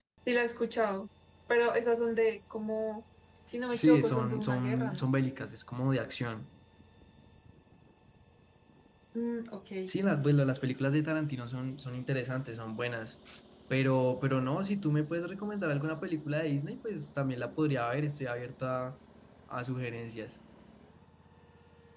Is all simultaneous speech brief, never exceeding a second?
No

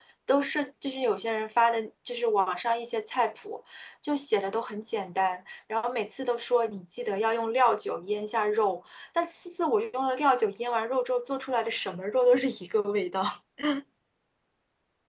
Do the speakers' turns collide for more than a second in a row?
No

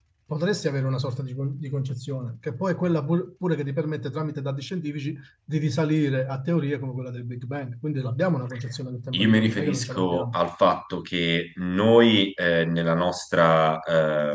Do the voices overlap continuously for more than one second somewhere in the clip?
Yes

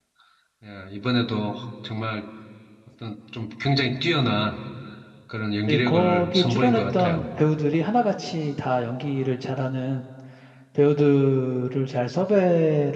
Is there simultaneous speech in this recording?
Yes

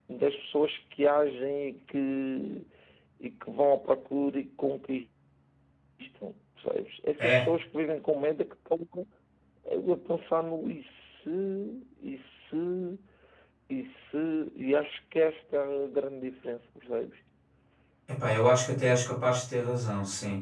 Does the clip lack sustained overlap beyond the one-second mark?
Yes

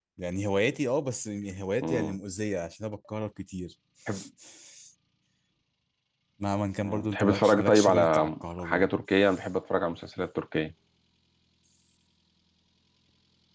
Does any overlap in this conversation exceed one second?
Yes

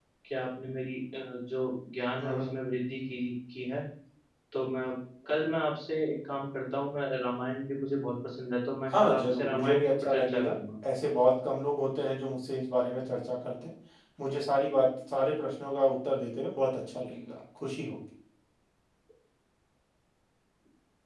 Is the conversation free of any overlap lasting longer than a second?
No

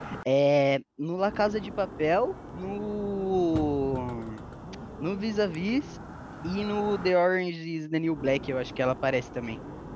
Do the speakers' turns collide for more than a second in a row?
No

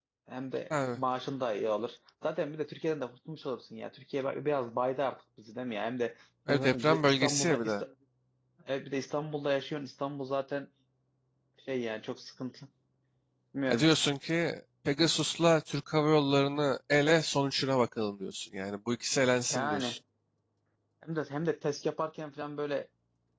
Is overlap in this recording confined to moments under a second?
No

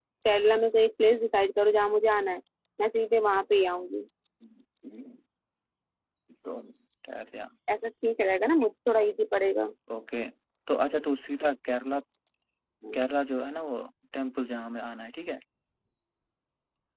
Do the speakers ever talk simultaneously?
No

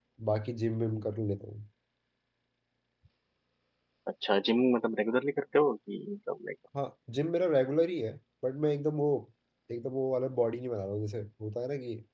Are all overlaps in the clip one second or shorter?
Yes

